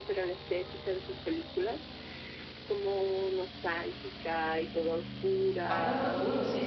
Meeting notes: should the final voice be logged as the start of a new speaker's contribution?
Yes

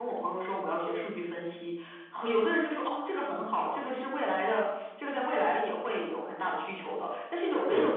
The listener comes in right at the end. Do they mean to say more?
No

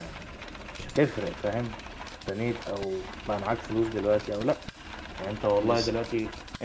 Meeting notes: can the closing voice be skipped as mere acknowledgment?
Yes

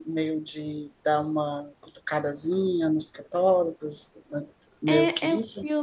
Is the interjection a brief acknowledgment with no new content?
No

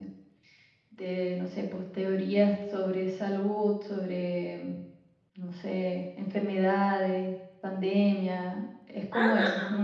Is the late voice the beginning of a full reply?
No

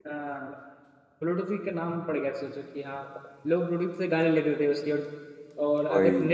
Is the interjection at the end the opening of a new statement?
No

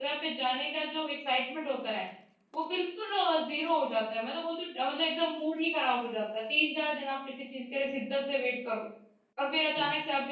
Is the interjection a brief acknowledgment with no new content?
Yes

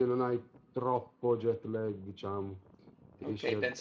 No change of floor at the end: No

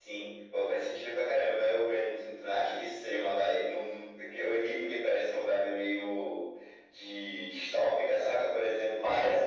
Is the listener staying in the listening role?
Yes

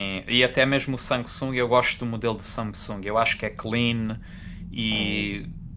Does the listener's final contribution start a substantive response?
No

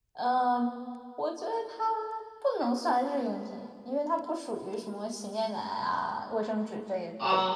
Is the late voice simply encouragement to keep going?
No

